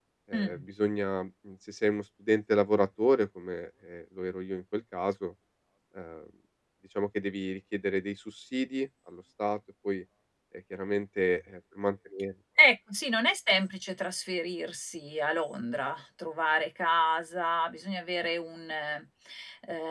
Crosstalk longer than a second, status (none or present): none